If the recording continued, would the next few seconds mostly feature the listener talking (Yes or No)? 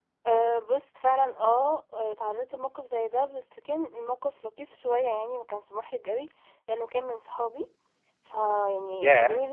Yes